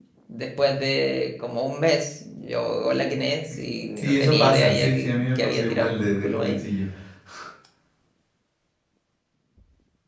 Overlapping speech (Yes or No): Yes